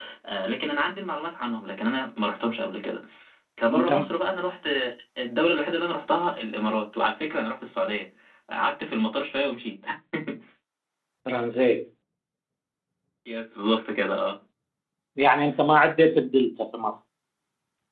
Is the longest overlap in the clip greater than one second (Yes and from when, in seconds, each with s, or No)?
No